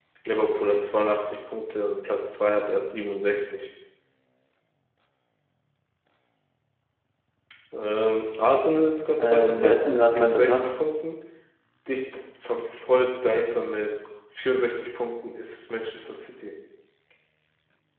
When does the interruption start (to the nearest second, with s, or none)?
9 s